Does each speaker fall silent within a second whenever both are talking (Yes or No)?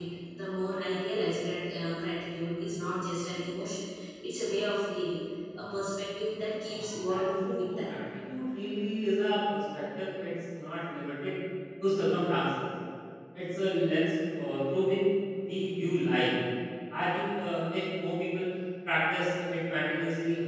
No